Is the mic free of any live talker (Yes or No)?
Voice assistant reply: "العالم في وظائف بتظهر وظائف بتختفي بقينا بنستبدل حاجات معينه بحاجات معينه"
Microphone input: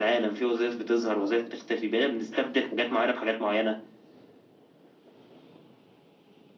No